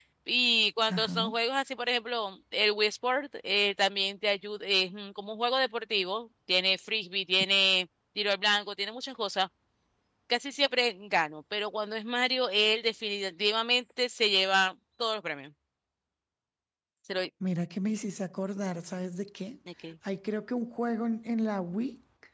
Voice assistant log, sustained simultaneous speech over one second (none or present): none